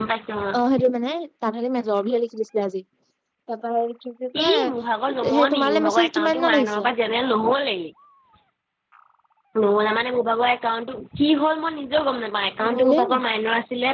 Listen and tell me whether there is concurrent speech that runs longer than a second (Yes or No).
Yes